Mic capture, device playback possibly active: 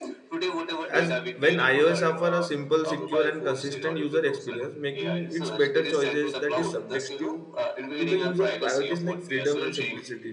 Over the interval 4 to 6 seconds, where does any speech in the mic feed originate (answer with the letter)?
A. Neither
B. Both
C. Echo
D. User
B